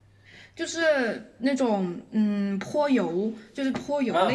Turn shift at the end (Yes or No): Yes